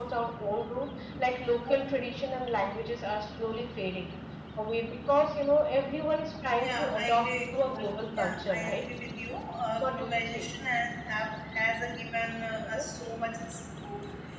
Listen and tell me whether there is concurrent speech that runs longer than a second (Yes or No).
Yes